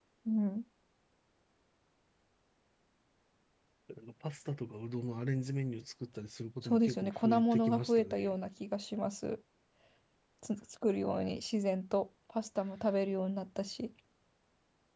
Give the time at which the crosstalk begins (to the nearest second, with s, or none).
7 s